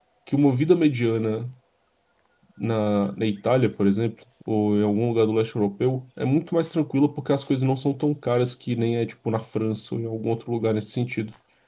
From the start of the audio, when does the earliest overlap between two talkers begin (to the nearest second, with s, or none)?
none